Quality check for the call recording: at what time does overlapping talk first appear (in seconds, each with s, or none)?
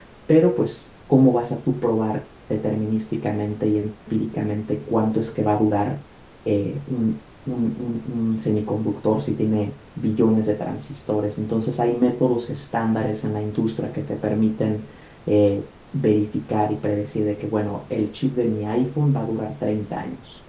none